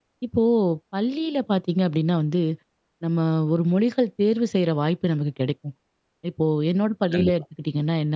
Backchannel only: Yes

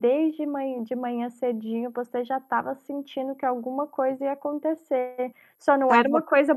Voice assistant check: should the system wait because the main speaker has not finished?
Yes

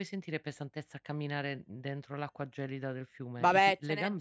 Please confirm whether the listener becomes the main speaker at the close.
Yes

